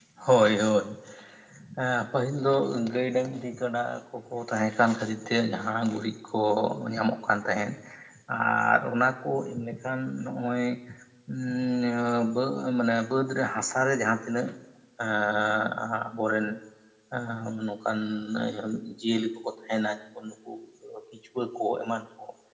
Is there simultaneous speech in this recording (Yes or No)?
No